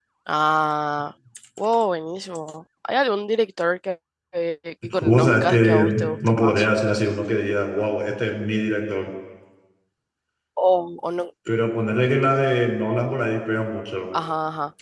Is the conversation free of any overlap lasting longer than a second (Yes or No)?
No